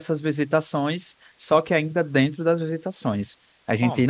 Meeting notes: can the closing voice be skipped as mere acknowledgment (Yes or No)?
Yes